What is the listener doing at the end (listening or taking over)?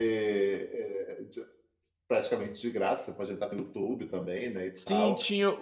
taking over